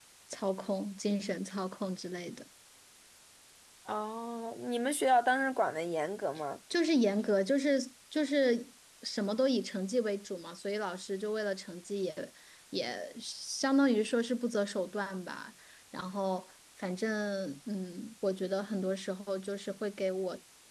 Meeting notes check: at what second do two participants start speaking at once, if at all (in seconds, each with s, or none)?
none